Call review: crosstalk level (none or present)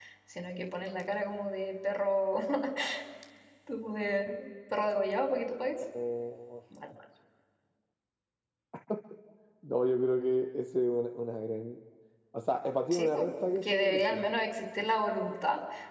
present